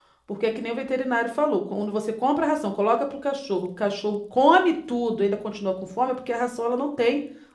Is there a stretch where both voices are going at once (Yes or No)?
No